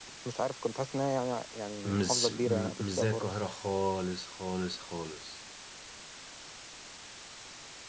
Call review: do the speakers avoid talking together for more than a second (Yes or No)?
No